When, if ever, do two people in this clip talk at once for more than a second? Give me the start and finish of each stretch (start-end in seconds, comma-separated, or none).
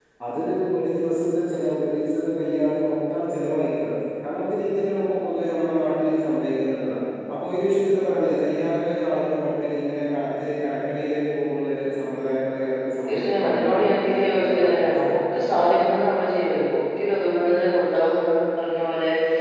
13.1-14.9